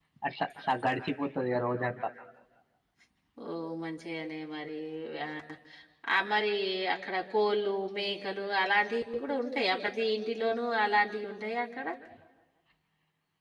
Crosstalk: none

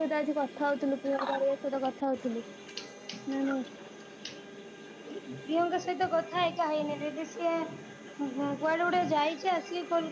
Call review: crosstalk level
none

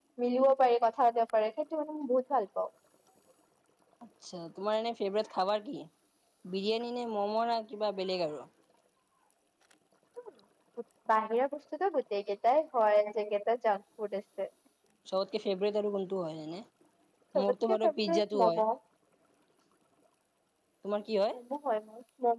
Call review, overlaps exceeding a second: present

